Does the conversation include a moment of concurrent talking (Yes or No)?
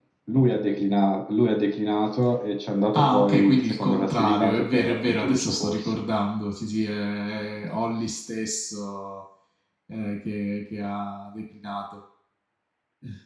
Yes